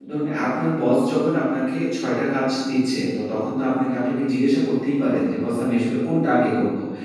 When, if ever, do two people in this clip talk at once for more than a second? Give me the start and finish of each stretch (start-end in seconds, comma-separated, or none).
none